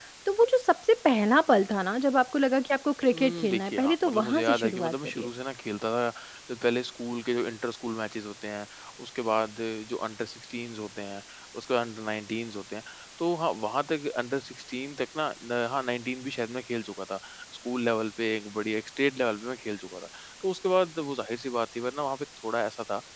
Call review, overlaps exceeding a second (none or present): present